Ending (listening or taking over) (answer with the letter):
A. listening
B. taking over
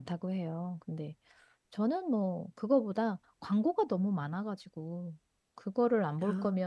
A